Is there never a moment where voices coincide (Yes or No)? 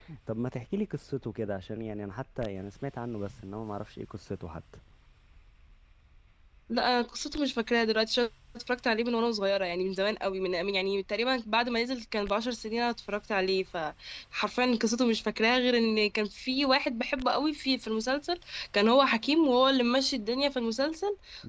Yes